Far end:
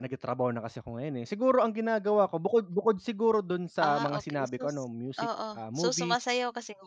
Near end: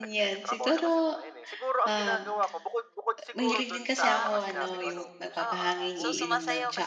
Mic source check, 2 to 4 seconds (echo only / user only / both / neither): both